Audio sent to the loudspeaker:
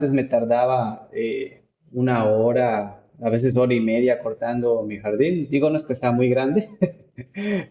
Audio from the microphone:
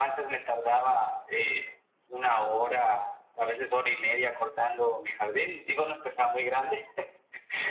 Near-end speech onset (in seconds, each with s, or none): none